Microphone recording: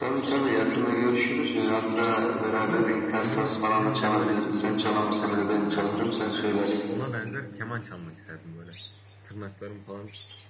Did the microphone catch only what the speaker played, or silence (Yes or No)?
No